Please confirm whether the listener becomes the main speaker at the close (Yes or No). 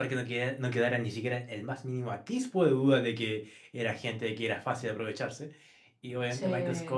No